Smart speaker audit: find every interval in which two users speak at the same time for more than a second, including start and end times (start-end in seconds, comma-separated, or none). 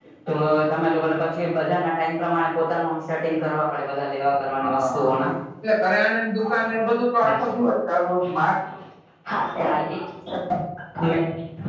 none